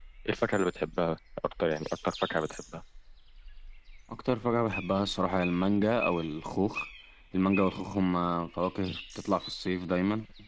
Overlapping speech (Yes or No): No